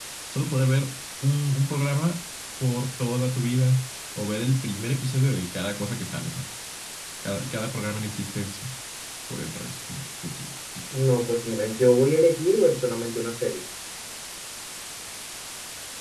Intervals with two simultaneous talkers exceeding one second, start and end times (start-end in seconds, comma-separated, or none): none